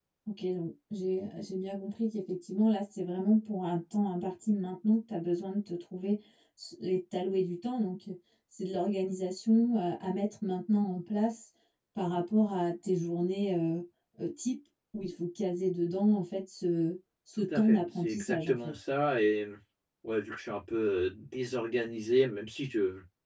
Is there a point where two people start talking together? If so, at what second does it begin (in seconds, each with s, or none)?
17.4 s